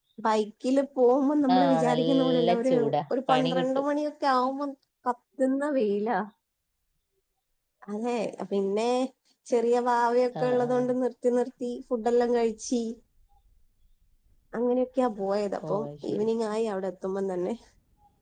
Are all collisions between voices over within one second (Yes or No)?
No